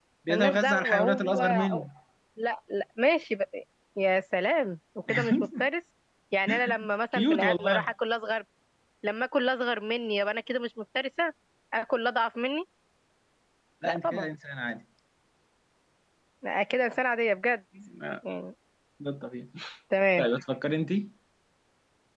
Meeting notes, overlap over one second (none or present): present